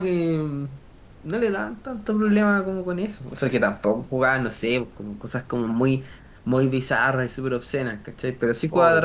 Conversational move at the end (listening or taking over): listening